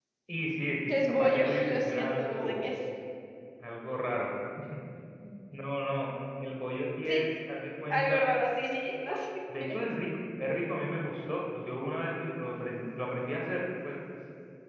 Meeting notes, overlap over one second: present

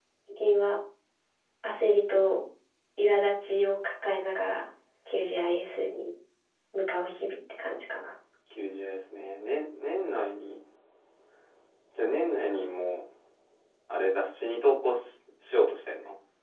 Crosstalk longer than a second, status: none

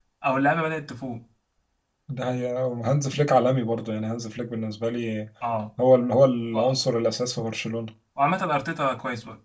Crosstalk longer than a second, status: none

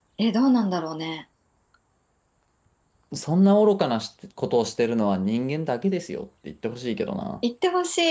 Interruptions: none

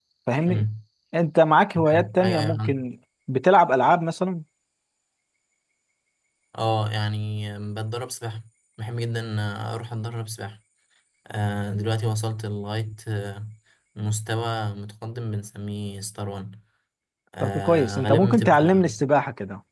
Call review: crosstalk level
present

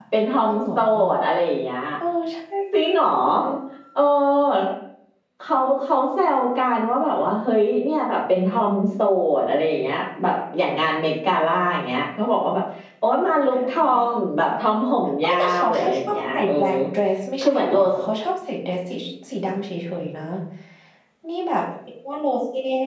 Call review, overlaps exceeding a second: present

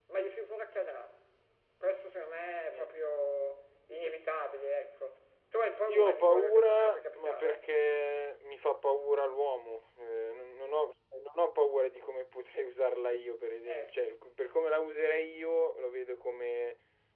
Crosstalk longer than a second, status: present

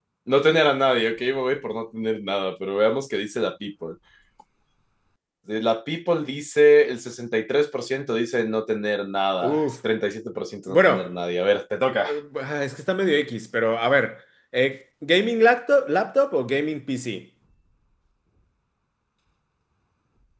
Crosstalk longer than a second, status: none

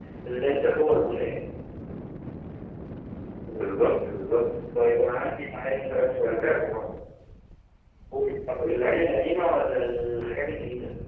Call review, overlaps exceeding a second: none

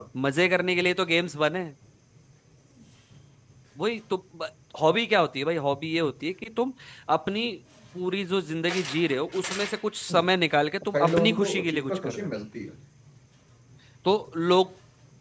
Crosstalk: present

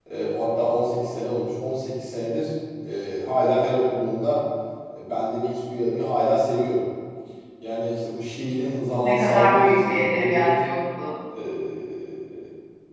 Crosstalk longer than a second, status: present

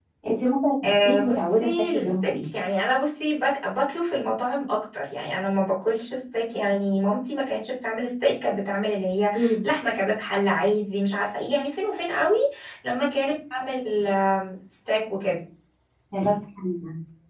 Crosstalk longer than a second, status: present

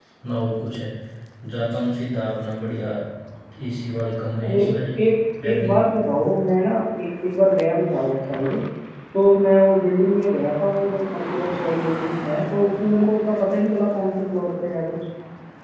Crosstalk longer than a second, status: none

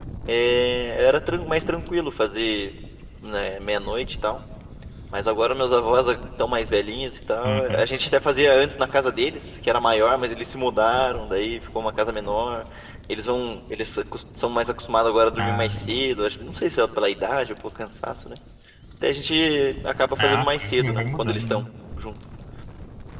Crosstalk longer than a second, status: present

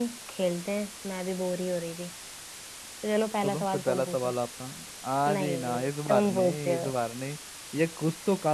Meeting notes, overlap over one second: present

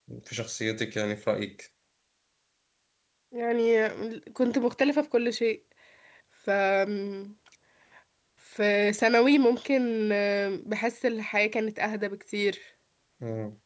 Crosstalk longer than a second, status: none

